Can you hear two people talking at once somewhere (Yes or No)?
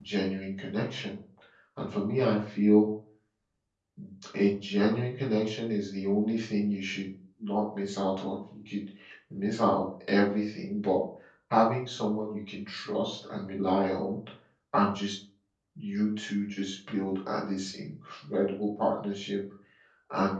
No